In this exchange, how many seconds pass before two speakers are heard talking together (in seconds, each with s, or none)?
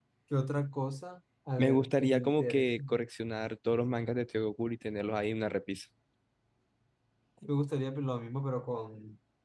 1.6 s